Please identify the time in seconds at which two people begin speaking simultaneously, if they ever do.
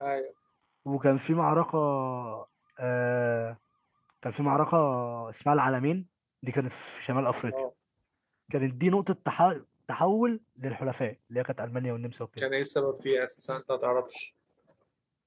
none

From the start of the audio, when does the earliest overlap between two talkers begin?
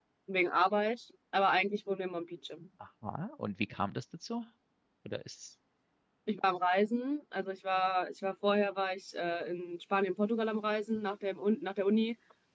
none

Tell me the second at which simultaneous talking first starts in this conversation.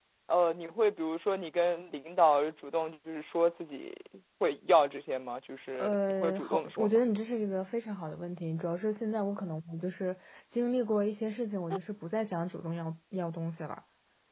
5.8 s

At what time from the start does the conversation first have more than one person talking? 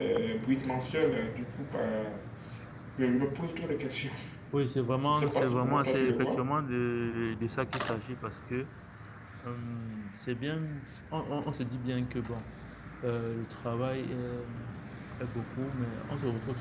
5.1 s

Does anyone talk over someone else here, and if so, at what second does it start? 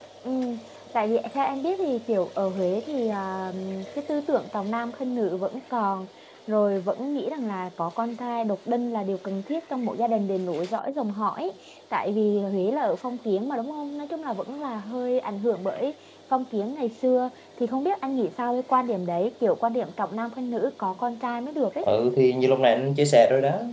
none

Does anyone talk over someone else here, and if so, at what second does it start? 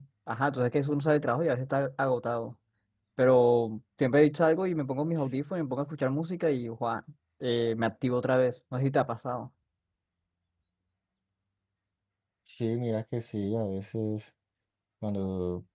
none

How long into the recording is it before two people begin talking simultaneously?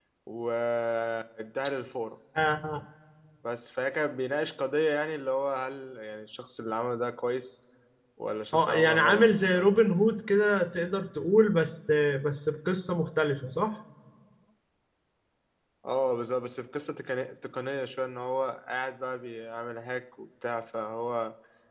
8.5 s

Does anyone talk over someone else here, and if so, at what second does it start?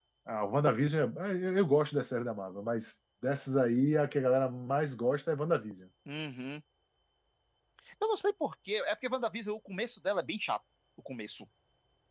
none

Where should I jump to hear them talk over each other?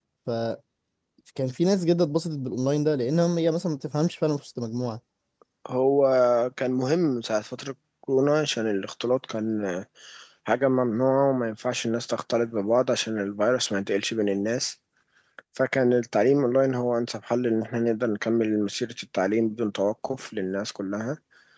none

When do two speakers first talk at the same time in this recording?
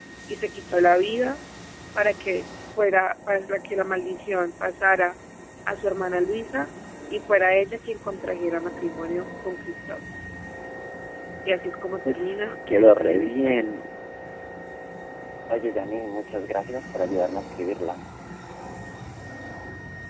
12.1 s

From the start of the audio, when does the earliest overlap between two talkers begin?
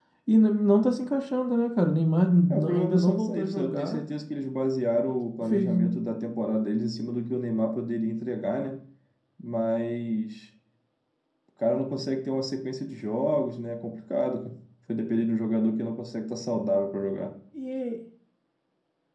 2.5 s

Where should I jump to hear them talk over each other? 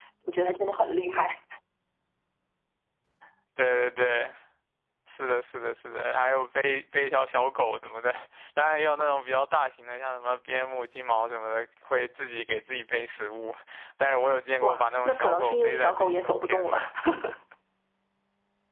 14.6 s

